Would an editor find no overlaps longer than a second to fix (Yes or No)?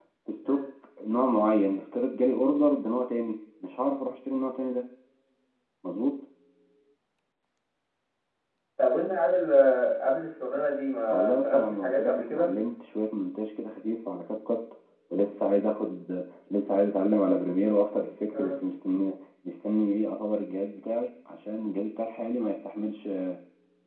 No